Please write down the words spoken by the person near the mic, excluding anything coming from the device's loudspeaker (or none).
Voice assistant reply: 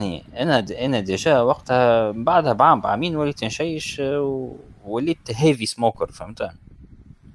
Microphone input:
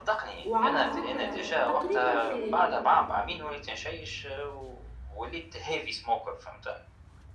وعلى فكرة تقريبًا إيه.